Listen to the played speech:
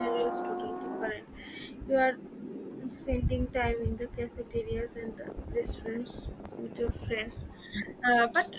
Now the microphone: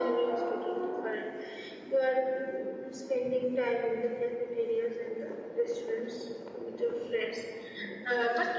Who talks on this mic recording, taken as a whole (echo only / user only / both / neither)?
echo only